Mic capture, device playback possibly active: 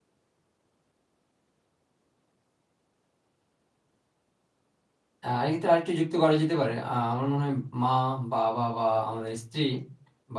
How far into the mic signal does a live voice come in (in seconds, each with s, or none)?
5.2 s